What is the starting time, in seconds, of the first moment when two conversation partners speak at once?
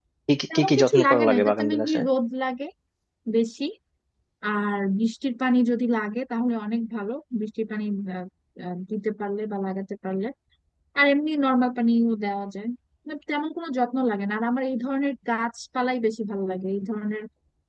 1 s

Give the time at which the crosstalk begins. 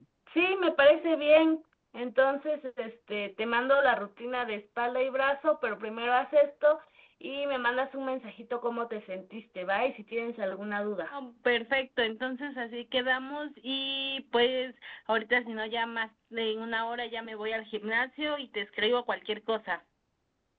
none

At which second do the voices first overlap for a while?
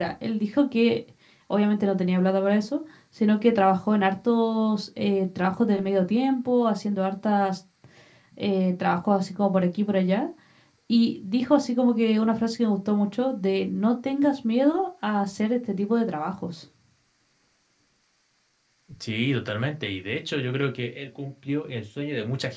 none

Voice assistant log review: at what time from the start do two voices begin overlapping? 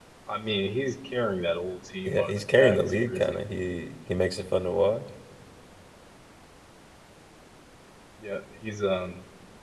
2 s

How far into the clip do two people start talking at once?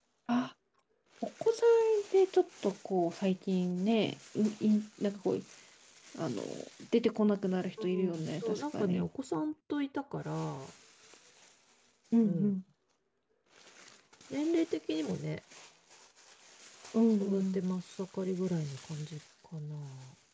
8 s

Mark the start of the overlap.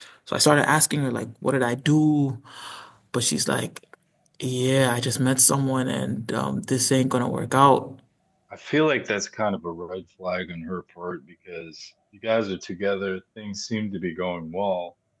none

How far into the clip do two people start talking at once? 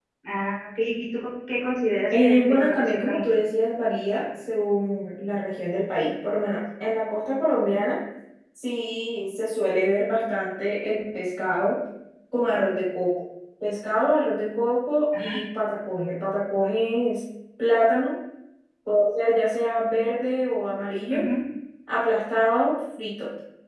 2 s

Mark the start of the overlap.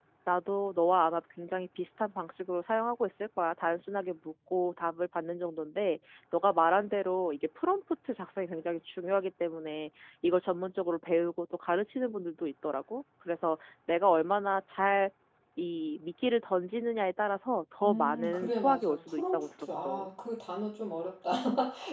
18 s

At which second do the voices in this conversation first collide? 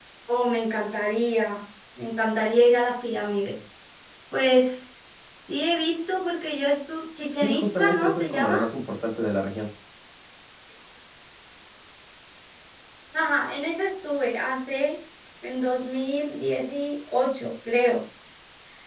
7 s

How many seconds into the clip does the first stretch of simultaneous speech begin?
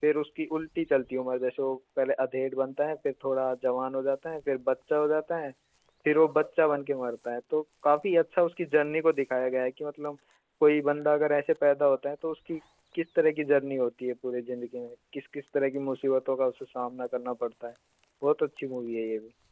none

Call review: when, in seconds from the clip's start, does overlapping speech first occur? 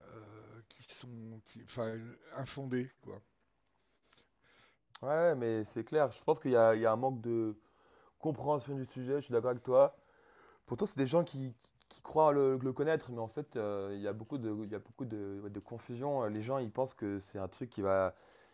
none

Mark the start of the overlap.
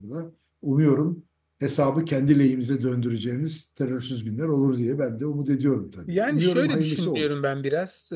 6 s

